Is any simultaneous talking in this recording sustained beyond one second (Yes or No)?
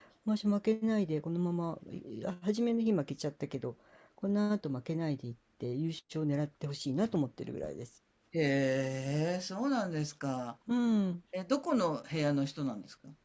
No